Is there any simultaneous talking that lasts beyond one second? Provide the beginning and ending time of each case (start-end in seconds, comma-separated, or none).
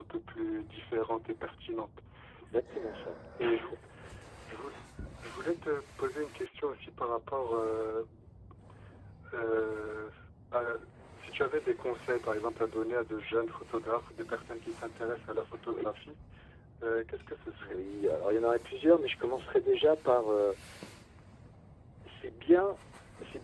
none